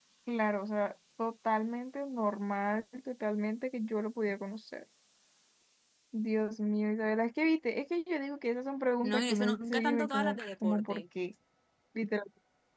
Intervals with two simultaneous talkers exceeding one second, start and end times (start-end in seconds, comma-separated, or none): 9.0-11.0